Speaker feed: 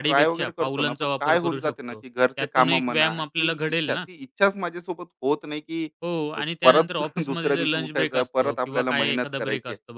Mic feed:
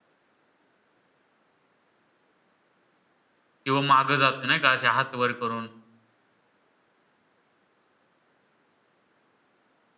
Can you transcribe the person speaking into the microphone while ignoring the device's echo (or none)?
किंवा मागं जातो नाही का असे हात वर करून.